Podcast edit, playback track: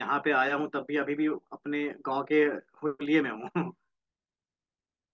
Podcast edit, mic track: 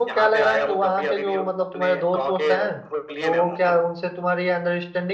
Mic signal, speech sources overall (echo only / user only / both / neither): both